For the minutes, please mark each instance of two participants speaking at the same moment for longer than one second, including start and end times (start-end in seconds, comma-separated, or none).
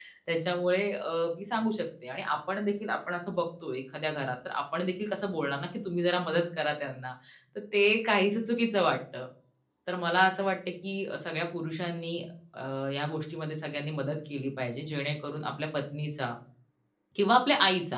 none